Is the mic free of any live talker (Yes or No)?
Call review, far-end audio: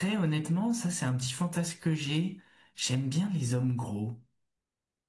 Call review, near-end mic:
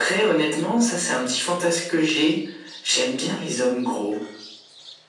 Yes